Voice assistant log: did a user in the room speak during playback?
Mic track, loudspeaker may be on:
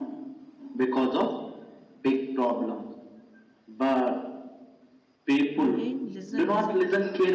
Yes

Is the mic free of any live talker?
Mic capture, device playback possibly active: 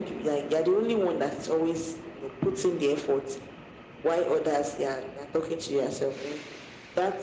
Yes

